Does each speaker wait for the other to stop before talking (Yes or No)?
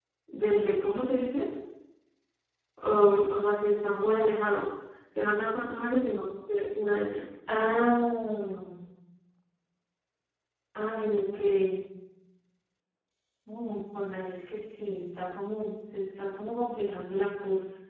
Yes